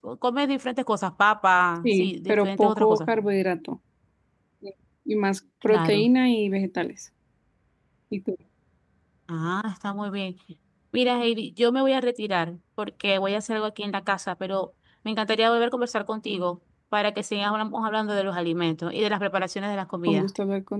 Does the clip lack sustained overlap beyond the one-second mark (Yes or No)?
No